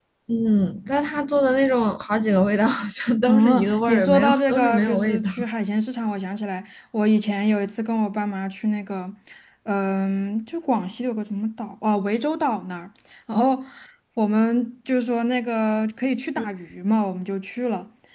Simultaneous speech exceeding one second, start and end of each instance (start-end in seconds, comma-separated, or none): 3.3-5.3